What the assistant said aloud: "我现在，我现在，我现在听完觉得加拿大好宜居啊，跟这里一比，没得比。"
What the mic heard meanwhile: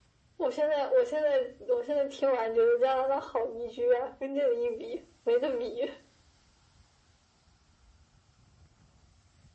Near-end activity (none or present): none